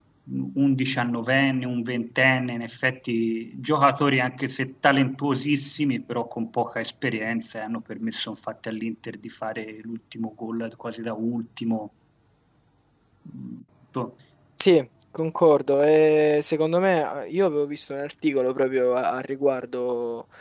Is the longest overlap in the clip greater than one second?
No

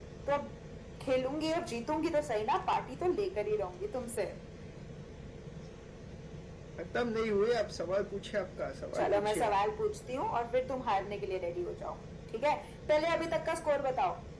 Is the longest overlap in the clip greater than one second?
No

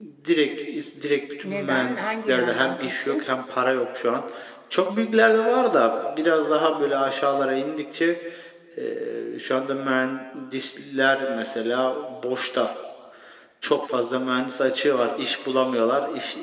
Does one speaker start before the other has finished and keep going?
Yes, from 1.4 s

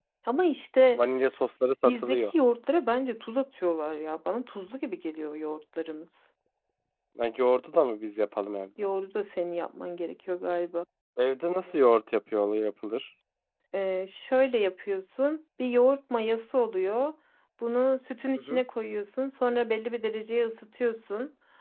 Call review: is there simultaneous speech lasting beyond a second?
No

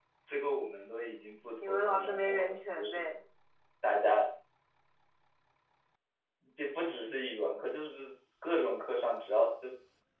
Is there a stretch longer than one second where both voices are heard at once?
Yes, from 1.6 s

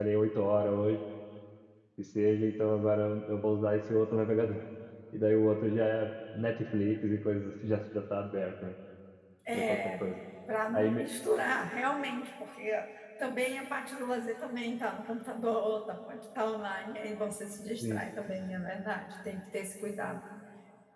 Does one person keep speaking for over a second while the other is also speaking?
No

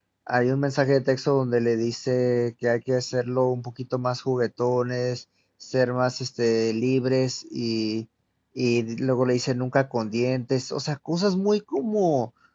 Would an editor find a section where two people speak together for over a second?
No

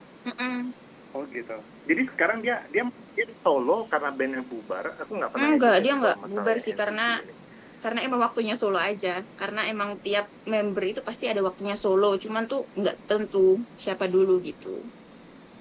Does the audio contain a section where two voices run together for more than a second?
Yes, from 5.4 s

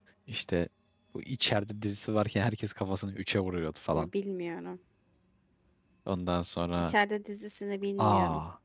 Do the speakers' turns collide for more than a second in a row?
No

